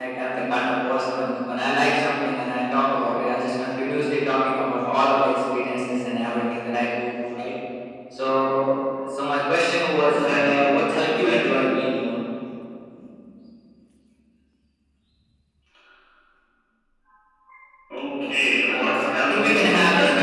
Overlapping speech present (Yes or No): Yes